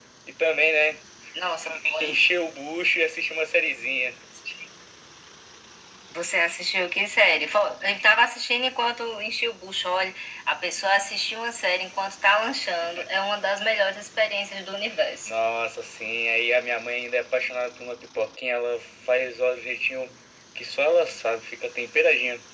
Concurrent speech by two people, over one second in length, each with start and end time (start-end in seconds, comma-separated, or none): none